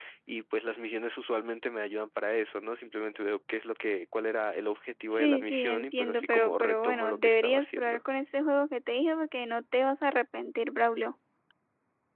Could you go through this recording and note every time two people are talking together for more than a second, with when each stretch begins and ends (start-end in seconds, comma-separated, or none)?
5.1-8.0